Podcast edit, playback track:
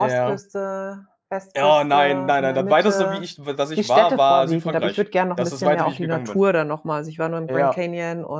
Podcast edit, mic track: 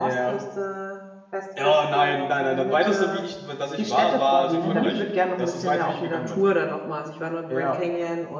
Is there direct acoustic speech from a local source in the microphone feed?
Yes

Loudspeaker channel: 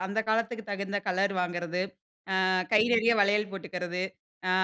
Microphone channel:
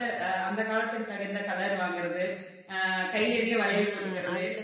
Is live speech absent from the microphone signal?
No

